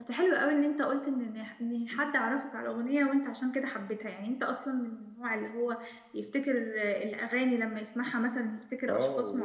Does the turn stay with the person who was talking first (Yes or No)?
No